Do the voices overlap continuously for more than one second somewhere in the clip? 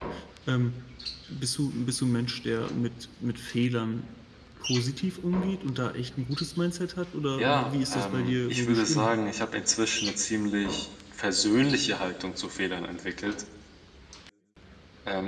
Yes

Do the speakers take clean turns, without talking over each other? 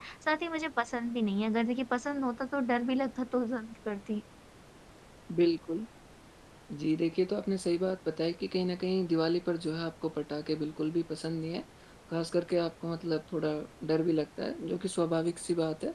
Yes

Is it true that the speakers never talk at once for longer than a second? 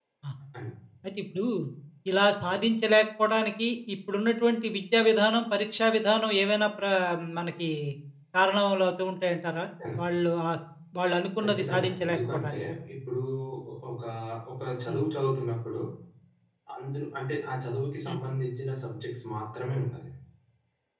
No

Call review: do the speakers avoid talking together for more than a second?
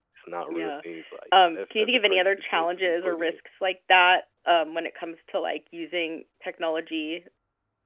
No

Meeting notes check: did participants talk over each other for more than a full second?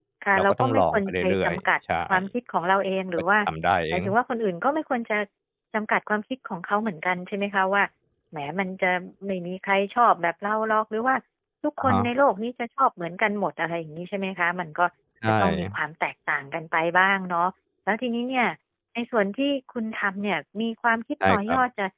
Yes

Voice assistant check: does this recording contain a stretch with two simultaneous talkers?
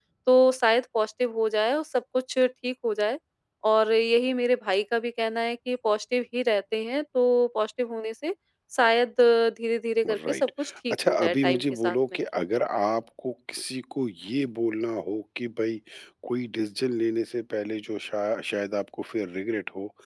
Yes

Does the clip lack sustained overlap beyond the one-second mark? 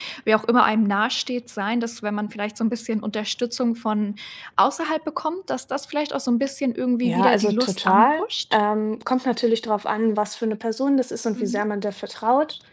No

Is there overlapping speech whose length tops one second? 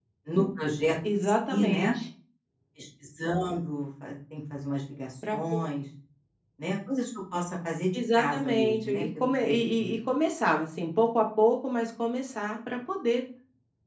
Yes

